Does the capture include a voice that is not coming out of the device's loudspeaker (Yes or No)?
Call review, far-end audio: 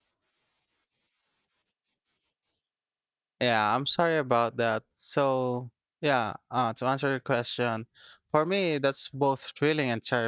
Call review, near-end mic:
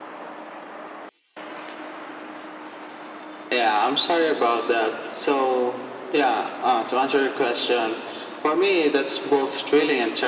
No